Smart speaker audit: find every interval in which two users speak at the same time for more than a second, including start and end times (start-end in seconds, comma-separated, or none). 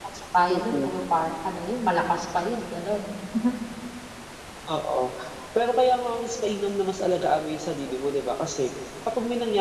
none